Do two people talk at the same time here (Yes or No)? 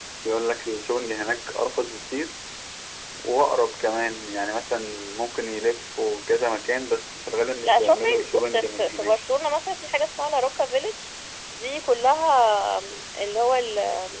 Yes